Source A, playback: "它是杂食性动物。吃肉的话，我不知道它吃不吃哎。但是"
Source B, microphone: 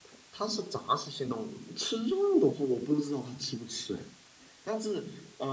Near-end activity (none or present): none